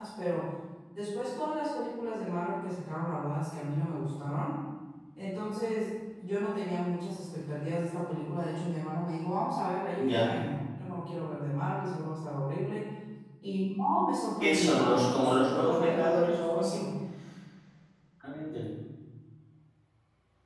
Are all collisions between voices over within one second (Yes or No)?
No